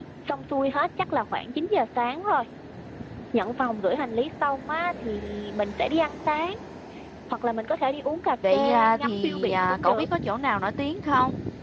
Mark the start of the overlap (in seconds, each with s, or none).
8.4 s